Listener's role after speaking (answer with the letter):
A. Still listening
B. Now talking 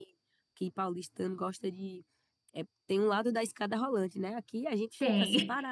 A